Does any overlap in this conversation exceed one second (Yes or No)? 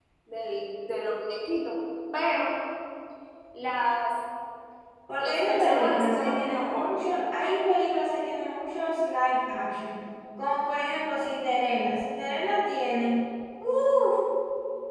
Yes